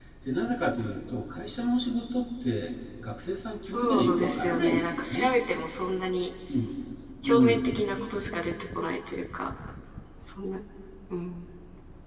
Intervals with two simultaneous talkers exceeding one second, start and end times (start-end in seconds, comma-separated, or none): 3.6-5.3